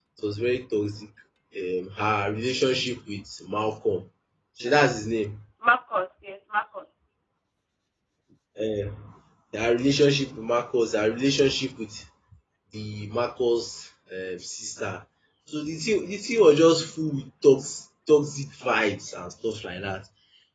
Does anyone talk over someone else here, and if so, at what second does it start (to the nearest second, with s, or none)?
none